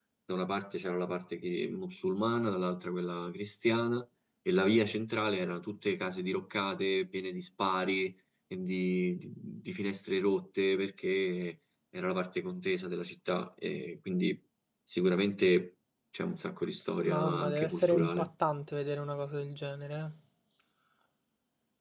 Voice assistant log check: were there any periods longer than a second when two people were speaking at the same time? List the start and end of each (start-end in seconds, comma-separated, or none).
17.0-18.3